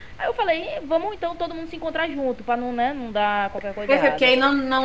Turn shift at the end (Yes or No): Yes